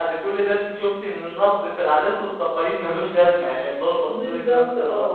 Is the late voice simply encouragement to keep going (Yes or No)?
No